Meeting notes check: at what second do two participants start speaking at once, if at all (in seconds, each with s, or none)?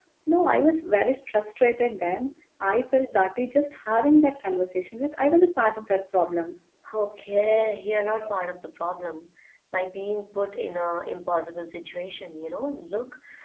none